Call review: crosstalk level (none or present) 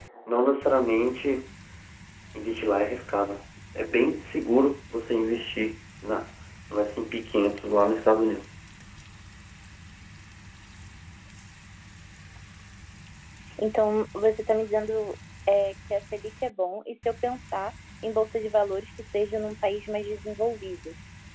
none